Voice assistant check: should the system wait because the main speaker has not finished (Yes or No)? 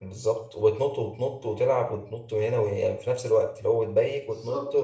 Yes